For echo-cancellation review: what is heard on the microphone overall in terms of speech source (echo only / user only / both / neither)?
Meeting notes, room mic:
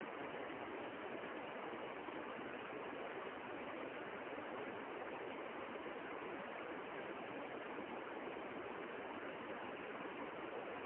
neither